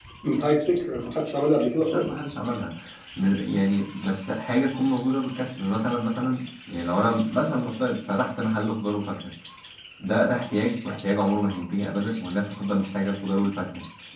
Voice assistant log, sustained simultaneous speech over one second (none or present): none